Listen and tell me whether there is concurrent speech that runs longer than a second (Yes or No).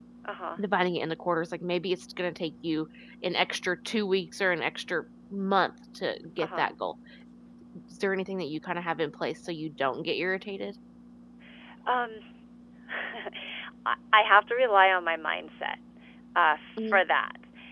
No